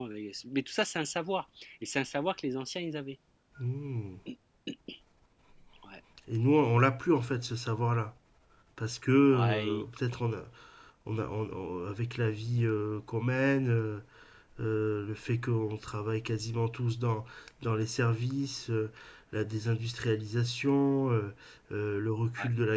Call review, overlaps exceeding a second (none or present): none